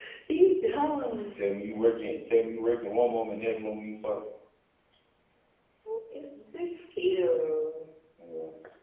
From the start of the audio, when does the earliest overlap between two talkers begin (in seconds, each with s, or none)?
none